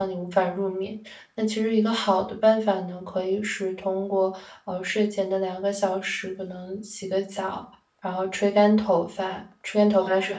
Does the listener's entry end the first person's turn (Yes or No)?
Yes